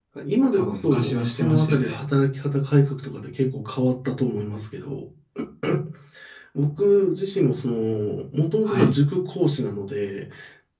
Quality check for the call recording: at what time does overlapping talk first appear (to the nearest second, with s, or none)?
1 s